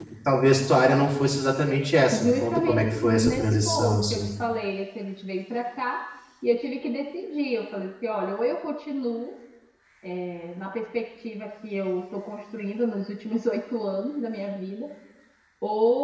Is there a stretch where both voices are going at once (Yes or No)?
Yes